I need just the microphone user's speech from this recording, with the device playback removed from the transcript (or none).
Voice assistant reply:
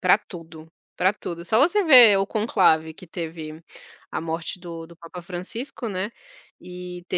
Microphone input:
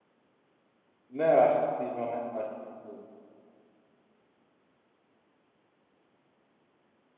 Não, eu acho incrível, né, eu acho incrível.